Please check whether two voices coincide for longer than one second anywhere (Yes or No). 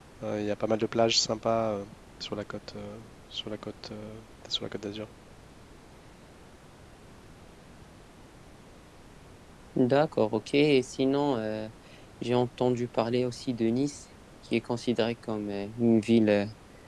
No